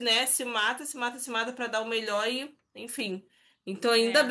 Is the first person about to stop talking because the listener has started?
No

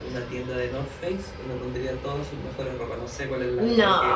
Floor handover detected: No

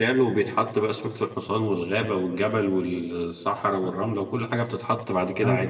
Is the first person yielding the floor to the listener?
Yes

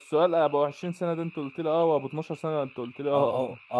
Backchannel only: No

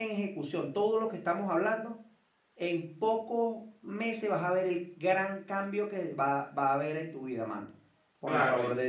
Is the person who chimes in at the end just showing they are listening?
No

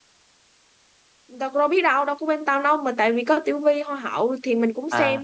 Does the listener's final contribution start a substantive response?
Yes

